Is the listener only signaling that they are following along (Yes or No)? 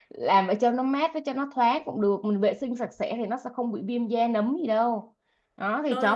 Yes